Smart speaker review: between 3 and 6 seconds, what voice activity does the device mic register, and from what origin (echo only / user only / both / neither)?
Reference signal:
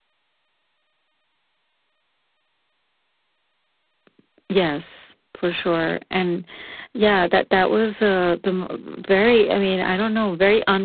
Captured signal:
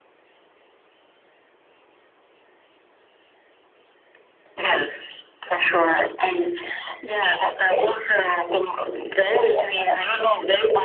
echo only